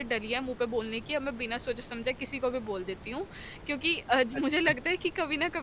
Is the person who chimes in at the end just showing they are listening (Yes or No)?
Yes